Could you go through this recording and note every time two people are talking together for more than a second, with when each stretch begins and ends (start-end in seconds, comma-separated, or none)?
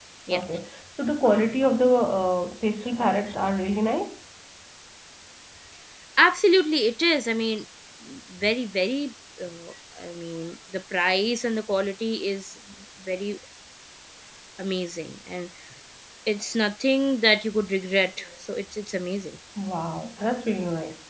none